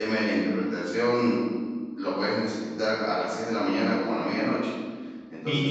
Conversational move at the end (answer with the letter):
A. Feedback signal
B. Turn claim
B